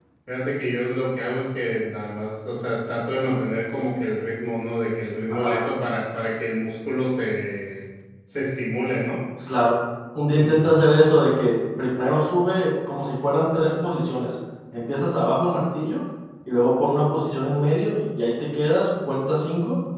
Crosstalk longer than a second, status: none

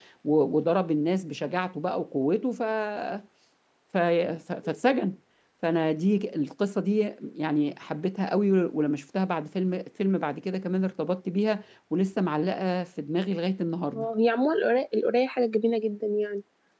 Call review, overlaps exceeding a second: none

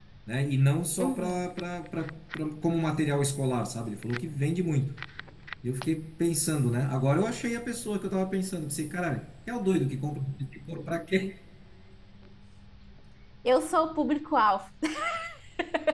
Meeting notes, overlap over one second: none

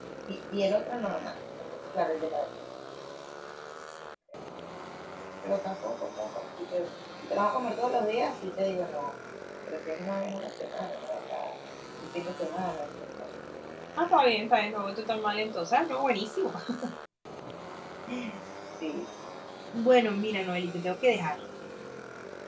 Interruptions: none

